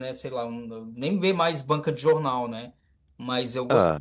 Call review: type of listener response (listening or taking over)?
listening